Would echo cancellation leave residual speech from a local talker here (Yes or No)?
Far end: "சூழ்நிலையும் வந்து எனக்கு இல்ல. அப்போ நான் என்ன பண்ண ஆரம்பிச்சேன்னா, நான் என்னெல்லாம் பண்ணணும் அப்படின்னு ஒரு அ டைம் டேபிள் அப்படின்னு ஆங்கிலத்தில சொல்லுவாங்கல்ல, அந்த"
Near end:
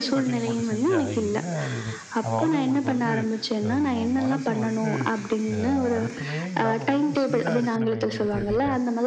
Yes